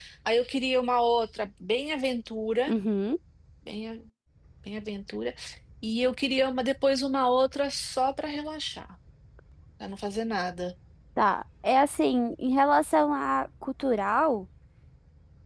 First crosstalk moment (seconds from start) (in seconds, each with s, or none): none